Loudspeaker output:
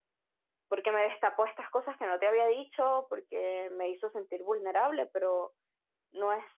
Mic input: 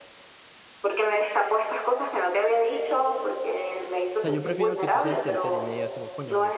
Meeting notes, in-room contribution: present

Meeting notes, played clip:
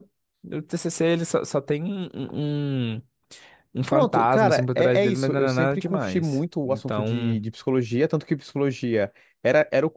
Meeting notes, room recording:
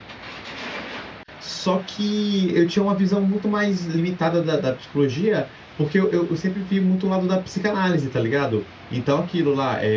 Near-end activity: present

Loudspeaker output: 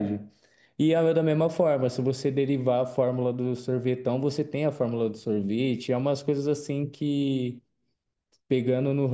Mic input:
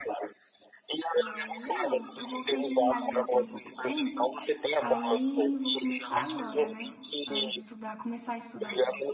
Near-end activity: present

